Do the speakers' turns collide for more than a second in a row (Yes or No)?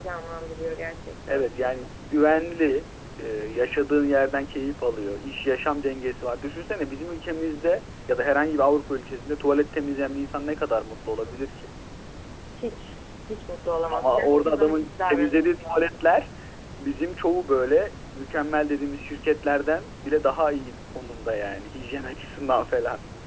Yes